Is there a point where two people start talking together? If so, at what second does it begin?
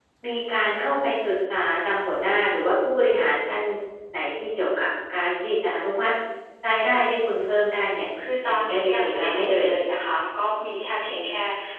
8.5 s

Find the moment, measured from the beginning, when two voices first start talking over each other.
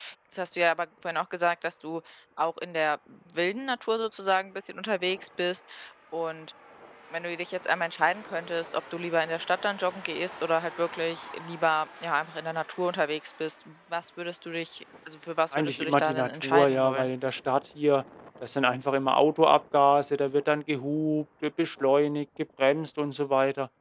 15.5 s

